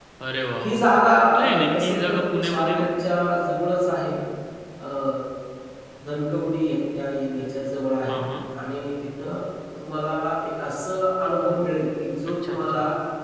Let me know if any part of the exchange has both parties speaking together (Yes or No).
Yes